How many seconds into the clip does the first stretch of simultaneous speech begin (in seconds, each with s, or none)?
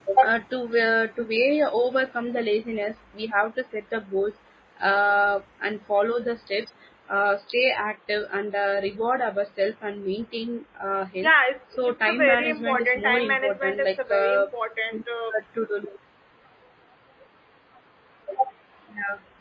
11.8 s